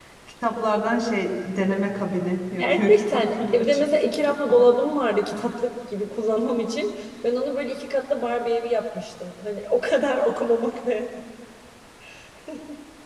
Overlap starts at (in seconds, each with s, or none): 2.6 s